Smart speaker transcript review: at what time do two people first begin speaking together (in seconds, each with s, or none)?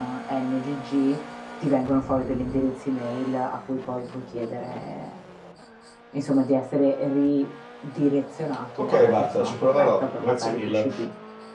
8.8 s